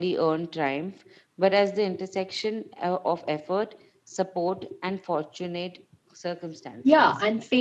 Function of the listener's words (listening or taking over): taking over